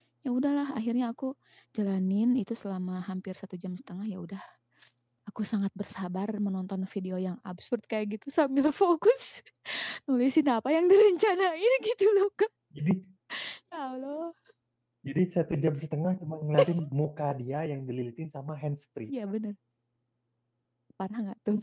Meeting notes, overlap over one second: none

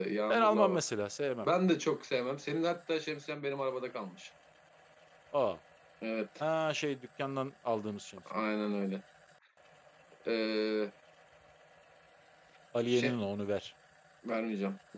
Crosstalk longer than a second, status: none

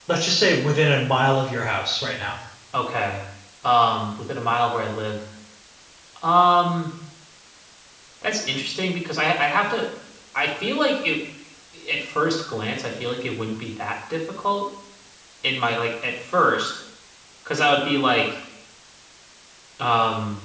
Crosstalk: none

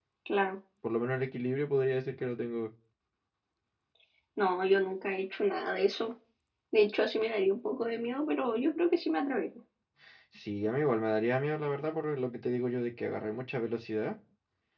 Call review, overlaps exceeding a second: none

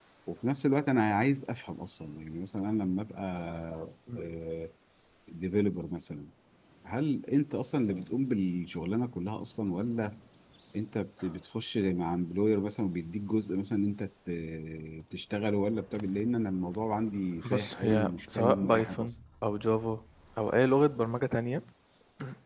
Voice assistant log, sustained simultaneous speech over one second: present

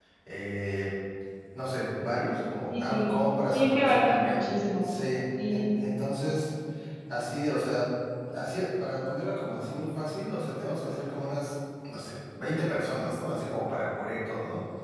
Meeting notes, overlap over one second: present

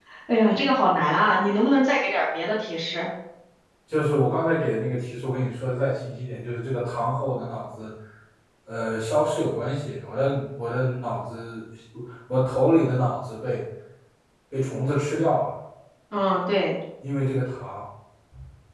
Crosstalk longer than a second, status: none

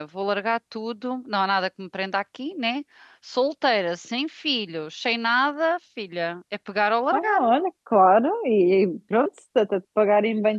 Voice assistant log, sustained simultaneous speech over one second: none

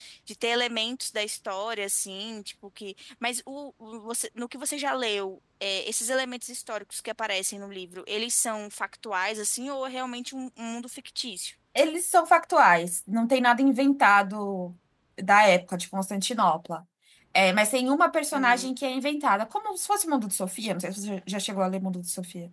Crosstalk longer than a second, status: none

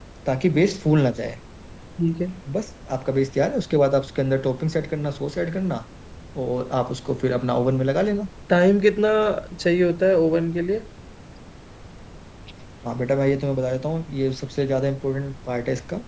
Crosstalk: none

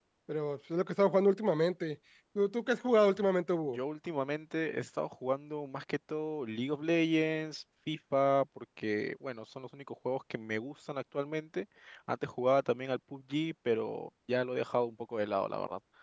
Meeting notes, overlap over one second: none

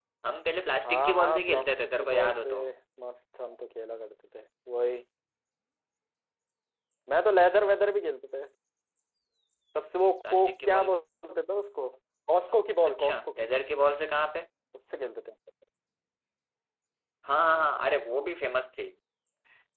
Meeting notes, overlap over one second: present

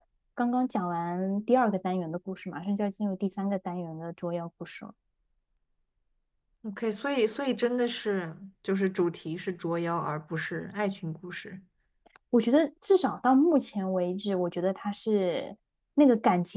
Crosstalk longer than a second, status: none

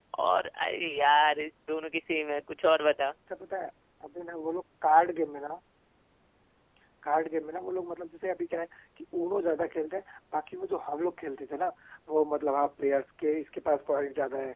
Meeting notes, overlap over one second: none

